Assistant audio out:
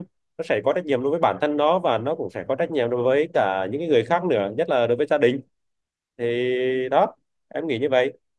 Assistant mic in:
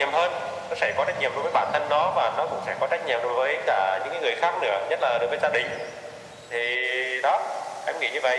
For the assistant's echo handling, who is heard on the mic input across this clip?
echo only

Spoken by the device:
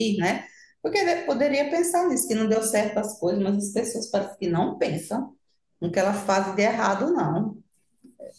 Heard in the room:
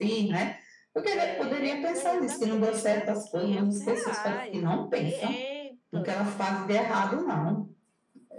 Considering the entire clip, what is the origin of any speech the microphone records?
both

